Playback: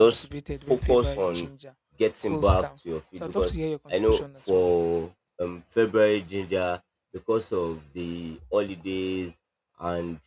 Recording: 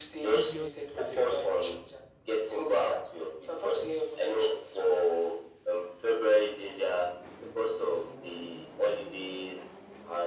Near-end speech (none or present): present